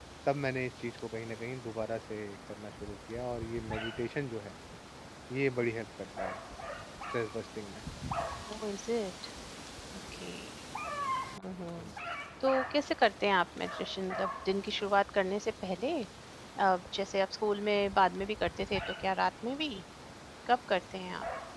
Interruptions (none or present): none